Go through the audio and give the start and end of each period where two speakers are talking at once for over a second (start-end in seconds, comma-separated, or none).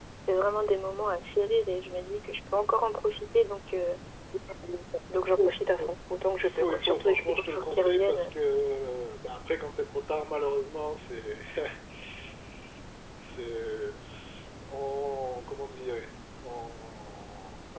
6.4-8.2